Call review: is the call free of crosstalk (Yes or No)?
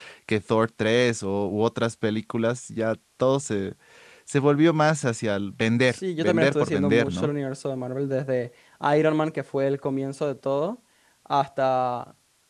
No